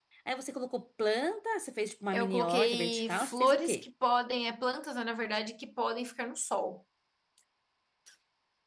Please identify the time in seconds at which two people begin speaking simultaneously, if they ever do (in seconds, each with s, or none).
2.1 s